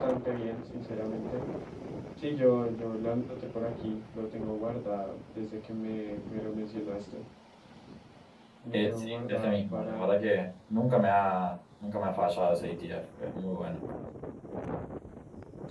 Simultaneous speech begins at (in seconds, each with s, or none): 8.7 s